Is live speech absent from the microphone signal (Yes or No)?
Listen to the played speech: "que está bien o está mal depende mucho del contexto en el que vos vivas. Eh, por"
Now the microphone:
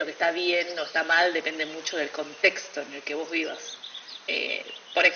Yes